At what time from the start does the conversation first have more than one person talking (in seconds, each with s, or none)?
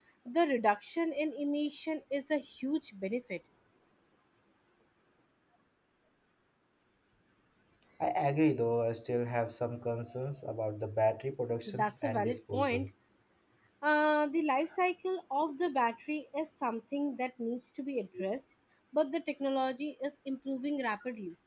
11.7 s